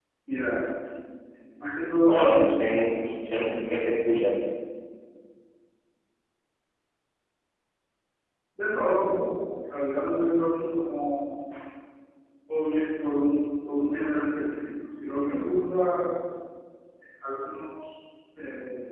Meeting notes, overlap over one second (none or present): present